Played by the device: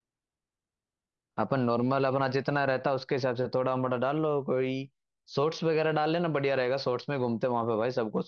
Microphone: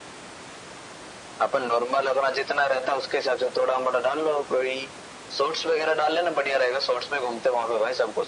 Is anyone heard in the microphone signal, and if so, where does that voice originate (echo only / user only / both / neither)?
echo only